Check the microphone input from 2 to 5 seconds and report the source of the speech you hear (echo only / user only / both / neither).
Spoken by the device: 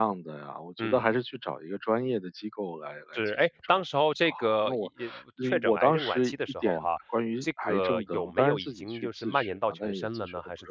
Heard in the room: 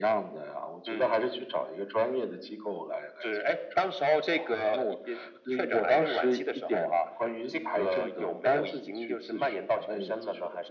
echo only